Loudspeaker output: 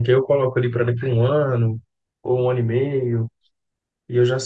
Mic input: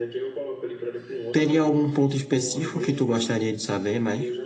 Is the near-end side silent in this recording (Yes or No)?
No